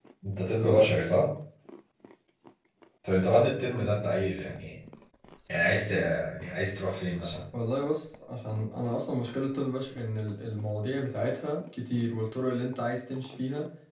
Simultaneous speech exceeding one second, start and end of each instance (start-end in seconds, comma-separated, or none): none